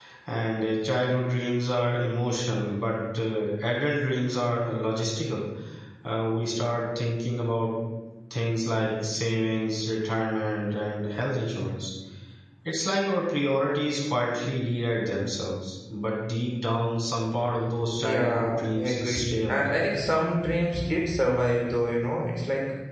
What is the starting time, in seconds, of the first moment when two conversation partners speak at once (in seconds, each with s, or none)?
18.0 s